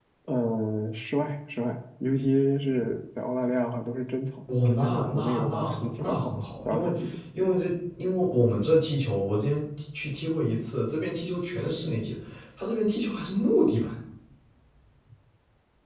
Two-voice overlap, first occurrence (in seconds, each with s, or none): 4.5 s